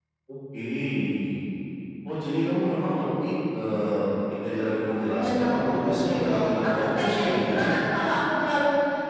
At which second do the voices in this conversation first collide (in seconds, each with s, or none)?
5.1 s